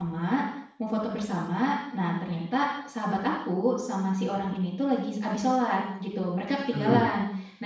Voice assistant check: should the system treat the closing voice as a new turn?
No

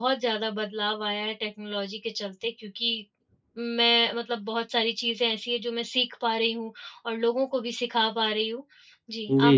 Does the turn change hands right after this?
Yes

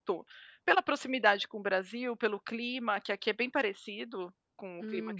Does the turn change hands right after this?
No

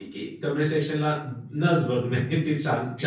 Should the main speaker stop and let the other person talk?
Yes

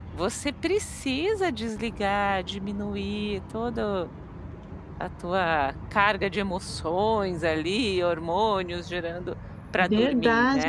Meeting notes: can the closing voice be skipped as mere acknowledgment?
No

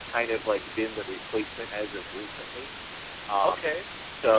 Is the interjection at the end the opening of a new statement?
Yes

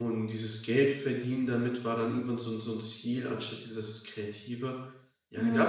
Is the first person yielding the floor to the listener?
No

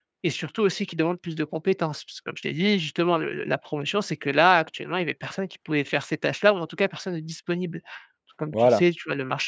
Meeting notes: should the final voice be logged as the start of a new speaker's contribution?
No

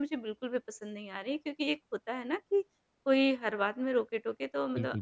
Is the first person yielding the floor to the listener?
No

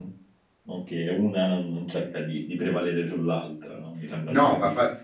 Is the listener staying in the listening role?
No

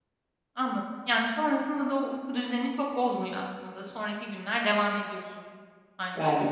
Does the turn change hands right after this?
Yes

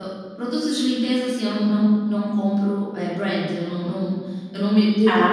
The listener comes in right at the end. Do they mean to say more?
No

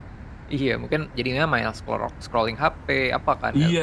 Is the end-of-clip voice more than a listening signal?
Yes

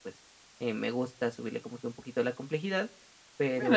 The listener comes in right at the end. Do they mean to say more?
Yes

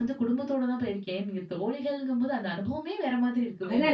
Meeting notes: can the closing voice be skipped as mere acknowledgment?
No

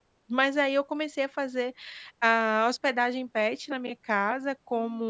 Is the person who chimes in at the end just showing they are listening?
Yes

